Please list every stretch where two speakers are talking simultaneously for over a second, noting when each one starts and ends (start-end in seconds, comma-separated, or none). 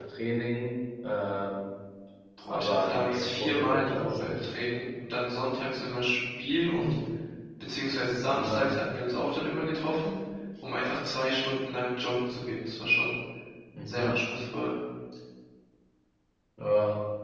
2.5-4.5